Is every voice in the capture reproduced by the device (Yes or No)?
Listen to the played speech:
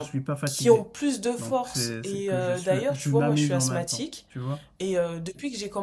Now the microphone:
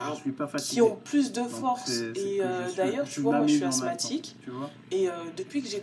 Yes